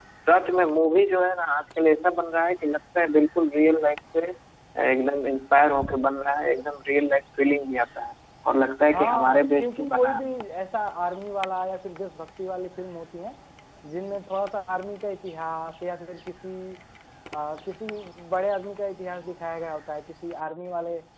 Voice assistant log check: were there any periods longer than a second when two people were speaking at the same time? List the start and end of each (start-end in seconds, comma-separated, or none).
8.9-10.3